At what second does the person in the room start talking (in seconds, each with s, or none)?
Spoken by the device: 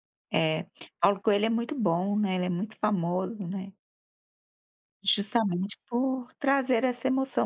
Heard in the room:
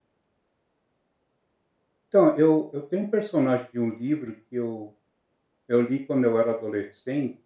2.1 s